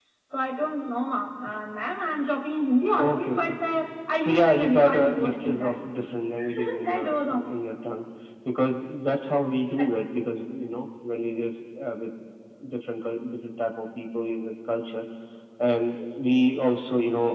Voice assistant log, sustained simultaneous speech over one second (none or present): present